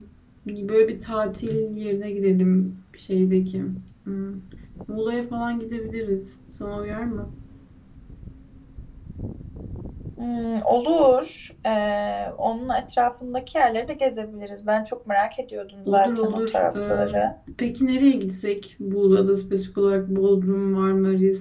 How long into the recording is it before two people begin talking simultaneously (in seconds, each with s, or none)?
15.8 s